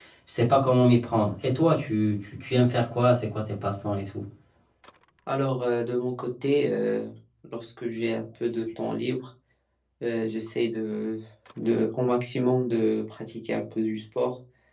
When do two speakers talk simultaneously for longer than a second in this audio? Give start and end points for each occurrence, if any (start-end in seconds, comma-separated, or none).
none